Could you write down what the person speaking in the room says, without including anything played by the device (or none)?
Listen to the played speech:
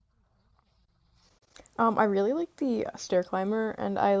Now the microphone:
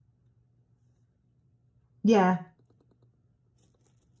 Yeah.